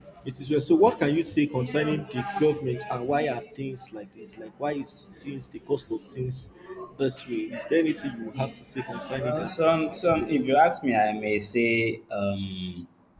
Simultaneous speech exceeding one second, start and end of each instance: 9.2-10.4

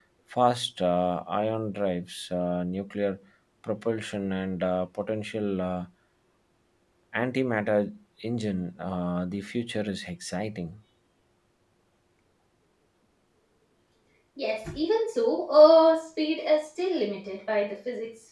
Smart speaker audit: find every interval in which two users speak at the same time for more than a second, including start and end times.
none

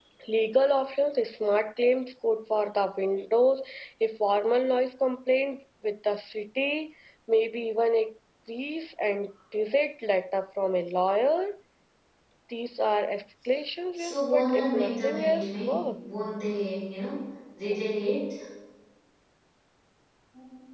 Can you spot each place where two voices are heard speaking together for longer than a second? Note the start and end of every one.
14.0-16.0

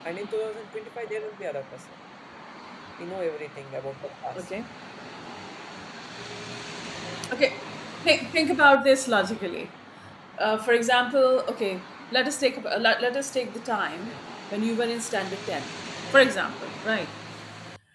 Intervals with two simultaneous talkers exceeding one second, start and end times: none

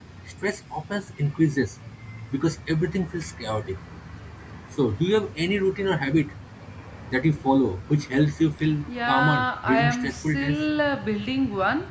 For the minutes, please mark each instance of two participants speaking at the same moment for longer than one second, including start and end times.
9.1-10.6

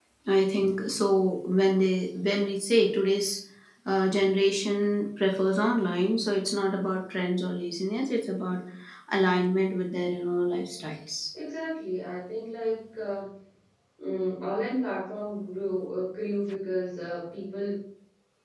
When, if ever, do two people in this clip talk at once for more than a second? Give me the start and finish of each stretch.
none

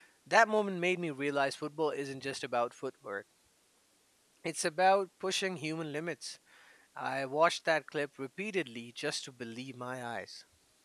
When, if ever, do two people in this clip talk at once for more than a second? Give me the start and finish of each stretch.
none

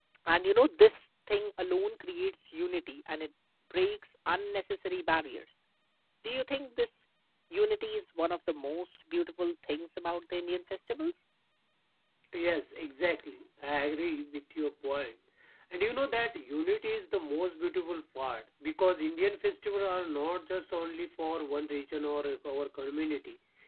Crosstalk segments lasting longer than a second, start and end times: none

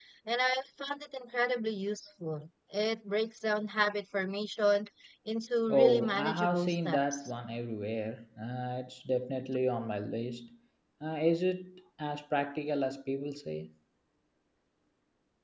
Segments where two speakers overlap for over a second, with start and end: 5.7-7.3

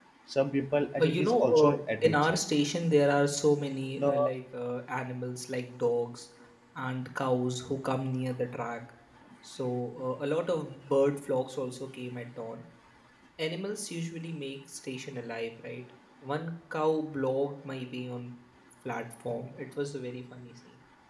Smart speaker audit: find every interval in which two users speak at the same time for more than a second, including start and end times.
1.0-2.4

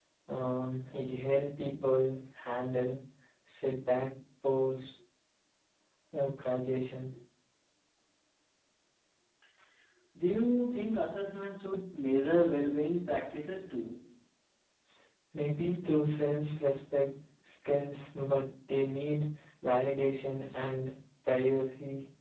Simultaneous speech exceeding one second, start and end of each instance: none

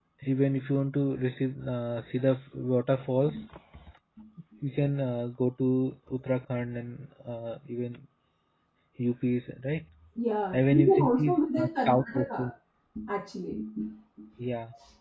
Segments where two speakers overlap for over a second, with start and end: 10.5-12.4

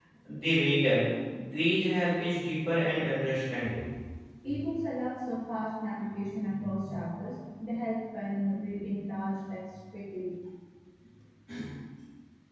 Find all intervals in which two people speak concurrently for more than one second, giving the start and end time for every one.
none

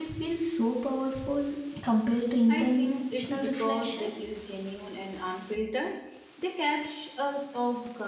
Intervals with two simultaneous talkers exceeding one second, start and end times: 2.5-4.2

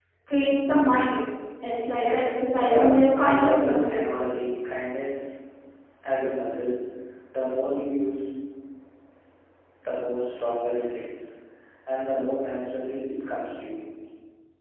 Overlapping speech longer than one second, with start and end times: 2.6-4.1

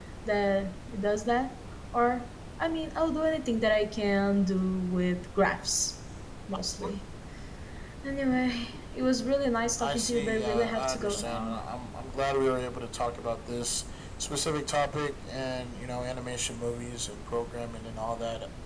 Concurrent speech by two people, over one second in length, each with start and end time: 9.8-11.6

